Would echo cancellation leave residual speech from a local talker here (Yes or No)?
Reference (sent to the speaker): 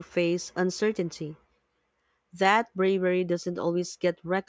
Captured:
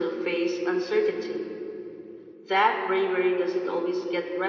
No